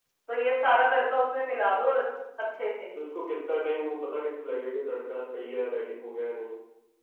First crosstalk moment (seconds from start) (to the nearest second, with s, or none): none